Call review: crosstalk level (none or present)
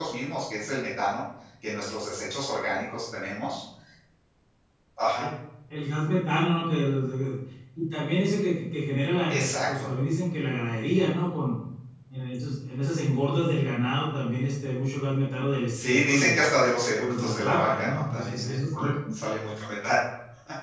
present